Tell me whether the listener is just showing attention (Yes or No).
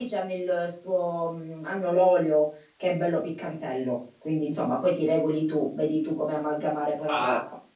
No